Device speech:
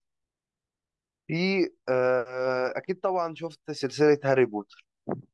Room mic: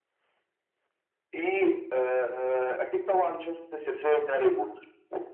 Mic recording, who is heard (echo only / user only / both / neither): echo only